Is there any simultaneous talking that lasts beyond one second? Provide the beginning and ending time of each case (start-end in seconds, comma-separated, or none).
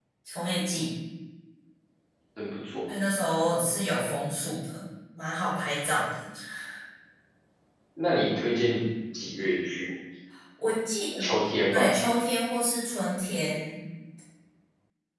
none